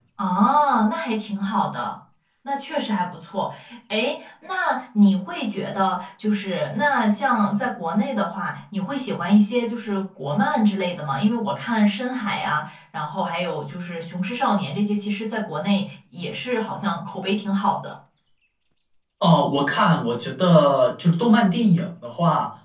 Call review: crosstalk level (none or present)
none